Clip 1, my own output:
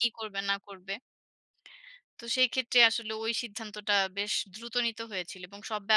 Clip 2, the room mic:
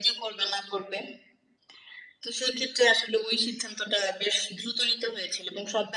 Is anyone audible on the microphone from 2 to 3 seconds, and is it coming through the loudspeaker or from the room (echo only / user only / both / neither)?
echo only